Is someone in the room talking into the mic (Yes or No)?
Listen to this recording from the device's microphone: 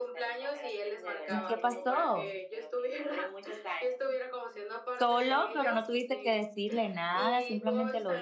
Yes